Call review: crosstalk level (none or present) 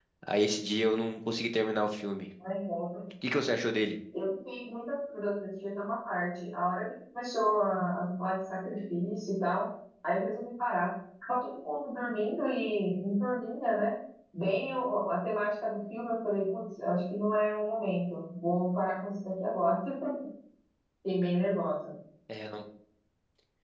none